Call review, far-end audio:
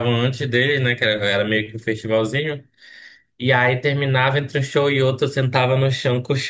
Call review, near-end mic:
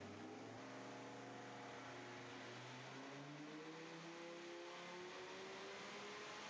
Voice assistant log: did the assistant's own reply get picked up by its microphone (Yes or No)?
No